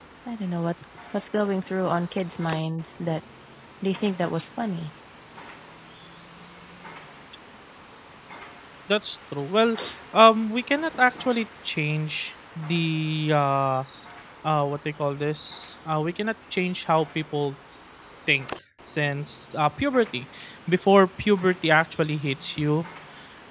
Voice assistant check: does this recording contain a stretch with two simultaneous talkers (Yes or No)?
No